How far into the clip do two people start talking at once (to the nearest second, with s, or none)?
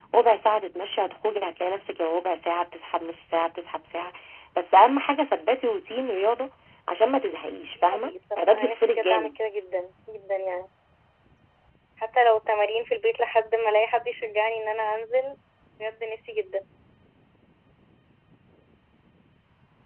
8 s